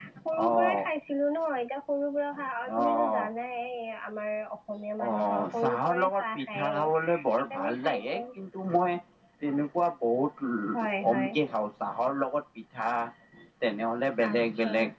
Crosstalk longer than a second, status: present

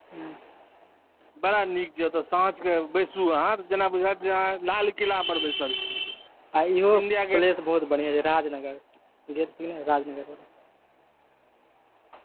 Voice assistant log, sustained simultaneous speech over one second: none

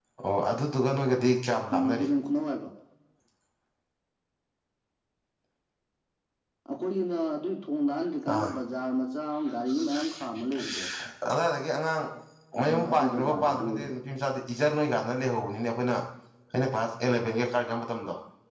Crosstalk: present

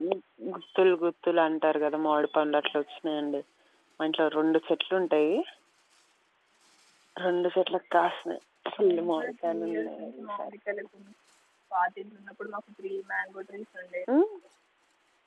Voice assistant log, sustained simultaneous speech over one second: present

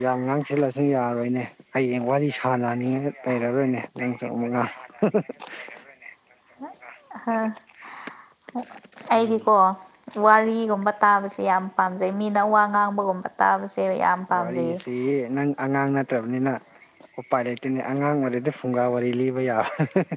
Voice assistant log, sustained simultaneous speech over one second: none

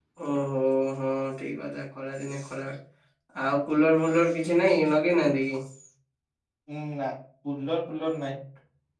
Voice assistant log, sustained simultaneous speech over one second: none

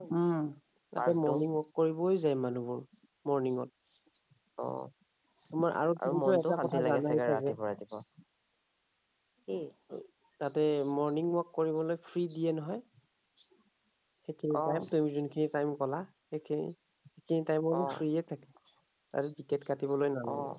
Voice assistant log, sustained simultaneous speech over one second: present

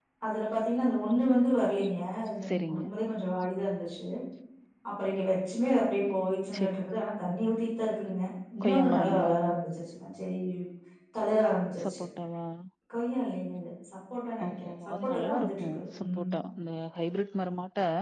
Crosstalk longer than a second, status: present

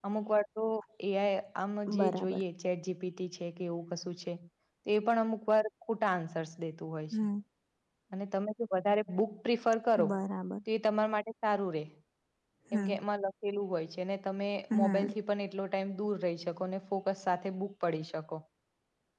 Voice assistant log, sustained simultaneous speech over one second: none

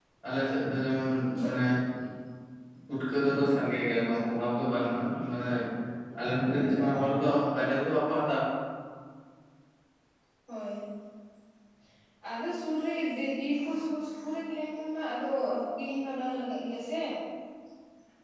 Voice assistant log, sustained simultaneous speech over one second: none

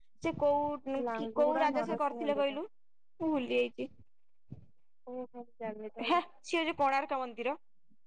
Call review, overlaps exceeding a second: present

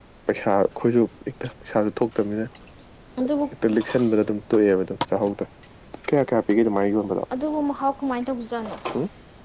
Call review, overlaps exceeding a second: none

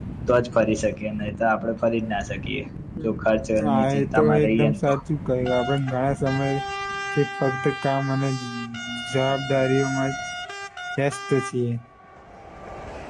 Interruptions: present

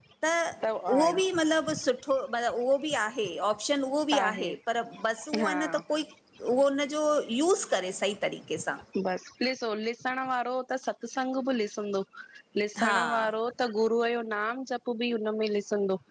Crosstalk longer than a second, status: none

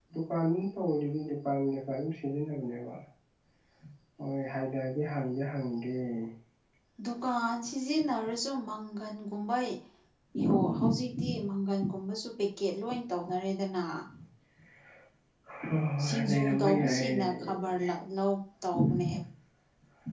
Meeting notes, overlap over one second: present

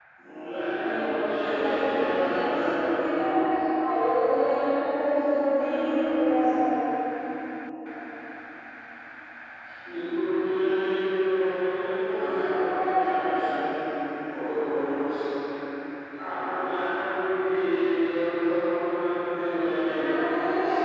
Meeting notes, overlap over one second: present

